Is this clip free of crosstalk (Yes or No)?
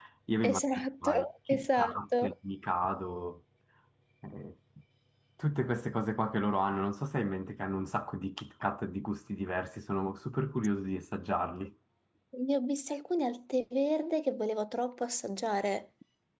No